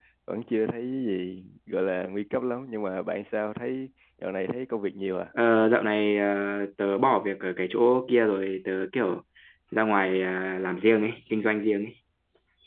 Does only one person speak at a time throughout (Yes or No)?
Yes